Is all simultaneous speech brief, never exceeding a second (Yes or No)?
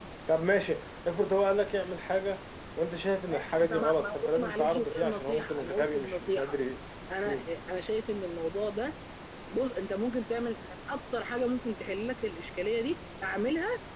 No